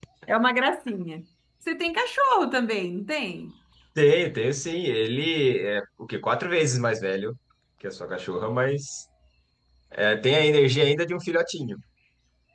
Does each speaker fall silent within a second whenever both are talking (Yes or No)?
Yes